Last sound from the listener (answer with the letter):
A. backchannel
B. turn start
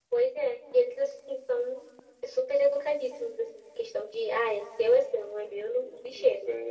B